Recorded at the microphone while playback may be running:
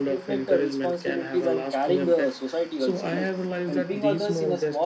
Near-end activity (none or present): present